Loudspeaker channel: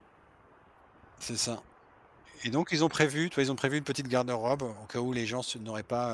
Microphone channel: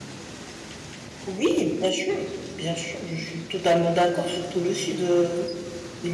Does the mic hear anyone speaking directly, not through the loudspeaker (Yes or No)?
Yes